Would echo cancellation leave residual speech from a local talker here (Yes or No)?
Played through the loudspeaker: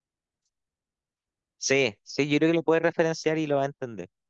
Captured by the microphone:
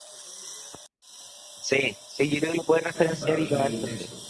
Yes